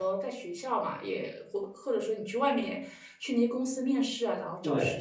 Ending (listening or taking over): taking over